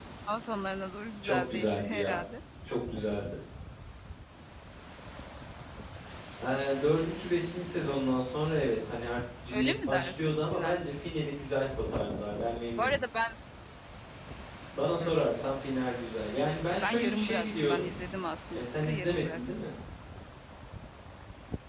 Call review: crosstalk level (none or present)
present